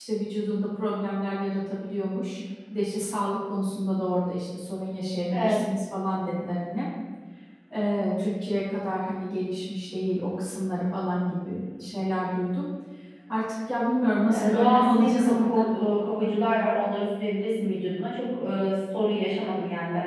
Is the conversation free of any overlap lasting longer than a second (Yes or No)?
No